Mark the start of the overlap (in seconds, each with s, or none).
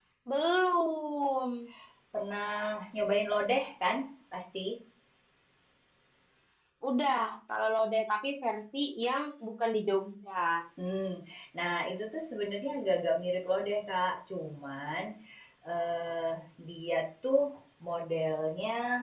none